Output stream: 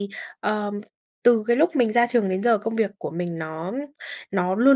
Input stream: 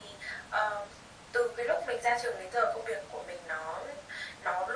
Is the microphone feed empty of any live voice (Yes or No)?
Yes